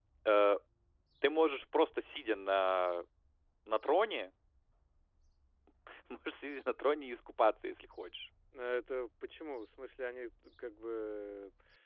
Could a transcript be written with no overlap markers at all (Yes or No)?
Yes